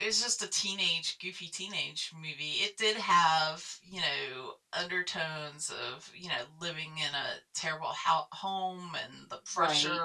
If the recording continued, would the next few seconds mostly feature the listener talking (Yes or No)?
No